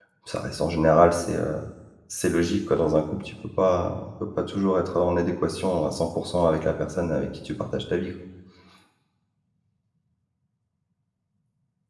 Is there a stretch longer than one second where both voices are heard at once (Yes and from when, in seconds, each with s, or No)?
No